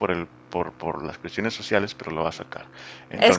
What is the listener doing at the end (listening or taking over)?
taking over